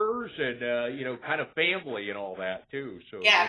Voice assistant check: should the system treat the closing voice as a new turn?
Yes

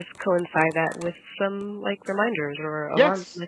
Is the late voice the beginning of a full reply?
Yes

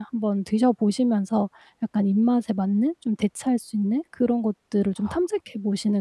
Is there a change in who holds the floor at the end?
No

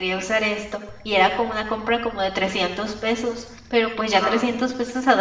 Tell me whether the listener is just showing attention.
Yes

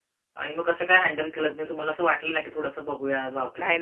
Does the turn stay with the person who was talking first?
No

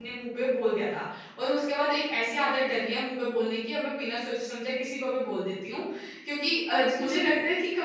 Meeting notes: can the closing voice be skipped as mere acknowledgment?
Yes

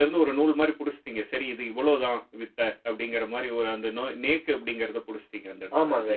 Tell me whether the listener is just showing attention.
No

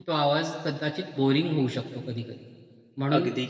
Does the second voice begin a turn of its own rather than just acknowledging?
No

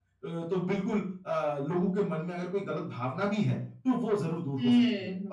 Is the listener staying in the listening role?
No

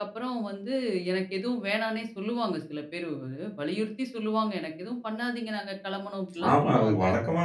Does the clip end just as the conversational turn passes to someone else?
Yes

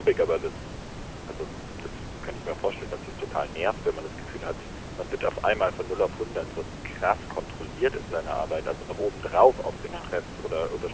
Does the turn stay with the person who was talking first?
Yes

